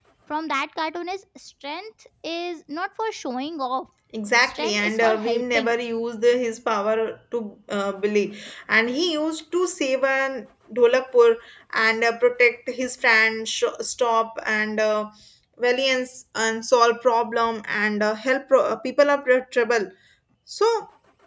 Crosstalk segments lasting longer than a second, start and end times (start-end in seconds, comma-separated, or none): 4.4-5.8